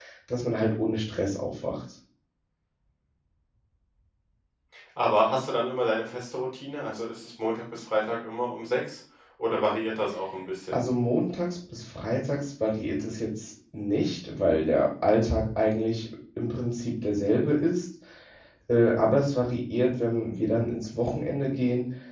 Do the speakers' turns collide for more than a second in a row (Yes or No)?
No